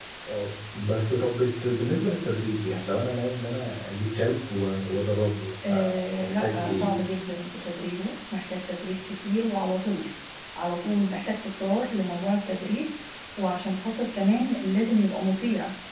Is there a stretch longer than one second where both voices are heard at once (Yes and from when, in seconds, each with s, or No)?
Yes, from 5.6 s